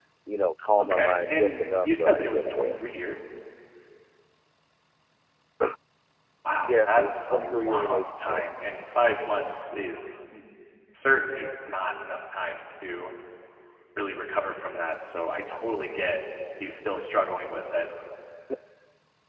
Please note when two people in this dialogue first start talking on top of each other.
1 s

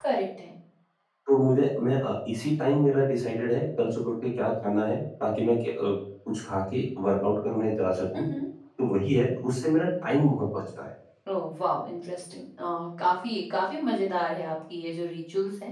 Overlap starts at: none

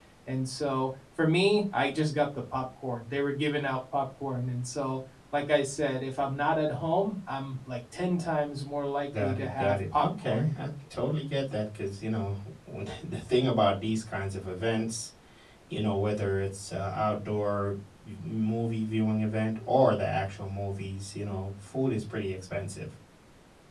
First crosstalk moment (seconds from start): 9 s

